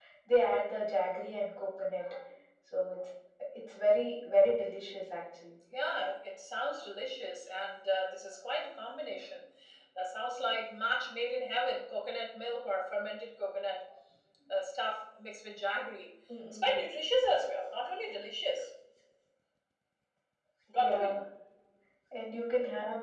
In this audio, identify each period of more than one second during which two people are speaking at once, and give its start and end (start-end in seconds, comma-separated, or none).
none